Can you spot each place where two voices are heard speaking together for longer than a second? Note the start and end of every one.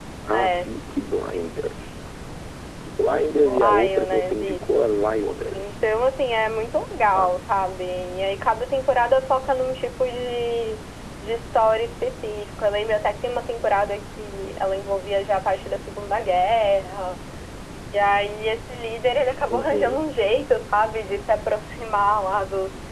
3.4-4.9

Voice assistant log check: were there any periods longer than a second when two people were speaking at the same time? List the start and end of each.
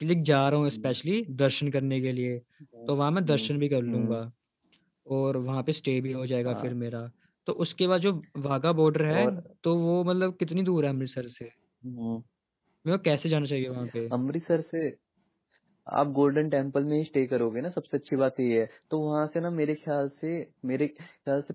none

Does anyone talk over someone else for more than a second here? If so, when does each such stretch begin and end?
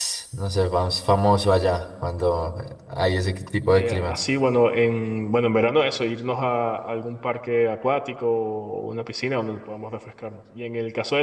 none

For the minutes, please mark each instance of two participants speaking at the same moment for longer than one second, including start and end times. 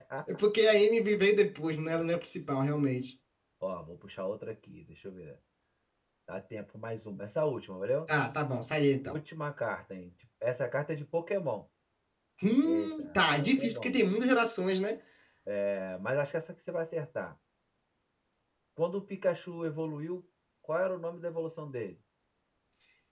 12.6-14.0

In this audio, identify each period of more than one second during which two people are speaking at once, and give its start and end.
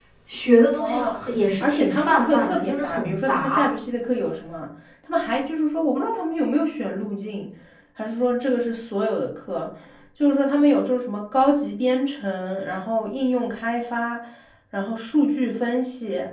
1.6-3.7

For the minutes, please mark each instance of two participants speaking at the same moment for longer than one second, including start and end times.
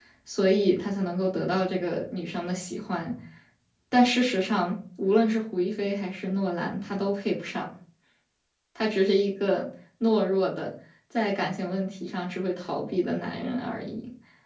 none

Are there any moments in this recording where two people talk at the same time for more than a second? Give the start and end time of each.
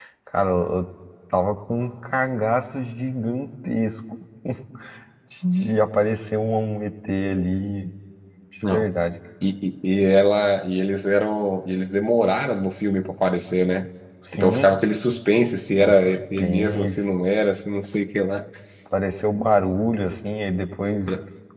15.8-17.0

